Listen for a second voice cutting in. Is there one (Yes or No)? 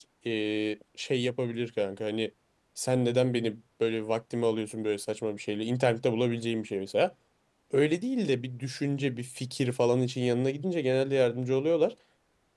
No